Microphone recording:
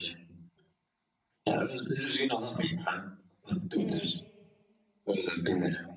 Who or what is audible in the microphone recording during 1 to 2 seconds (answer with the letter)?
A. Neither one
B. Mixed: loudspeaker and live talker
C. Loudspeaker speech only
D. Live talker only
C